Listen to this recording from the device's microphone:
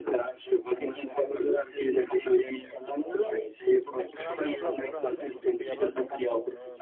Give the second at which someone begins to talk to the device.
4 s

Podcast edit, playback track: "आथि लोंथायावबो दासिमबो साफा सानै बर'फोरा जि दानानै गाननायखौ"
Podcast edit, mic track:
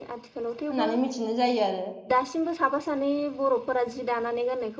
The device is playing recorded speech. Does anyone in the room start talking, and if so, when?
1 s

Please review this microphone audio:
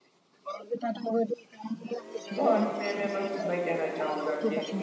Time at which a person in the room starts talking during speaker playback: 2 s

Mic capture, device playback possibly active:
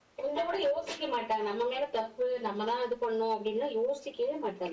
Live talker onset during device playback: none

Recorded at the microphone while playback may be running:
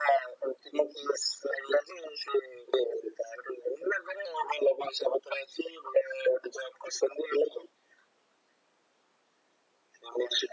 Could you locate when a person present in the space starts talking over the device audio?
none

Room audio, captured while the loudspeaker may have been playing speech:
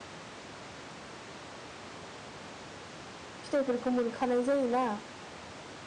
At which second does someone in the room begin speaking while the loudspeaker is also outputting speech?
3 s

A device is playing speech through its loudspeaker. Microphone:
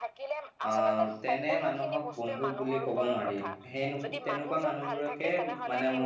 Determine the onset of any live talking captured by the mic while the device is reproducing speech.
1 s

